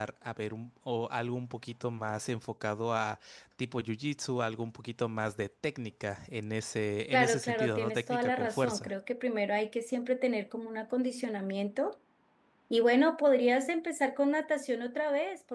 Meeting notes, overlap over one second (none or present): present